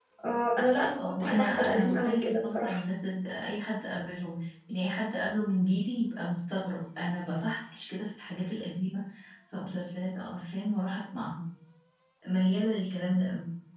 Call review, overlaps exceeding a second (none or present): present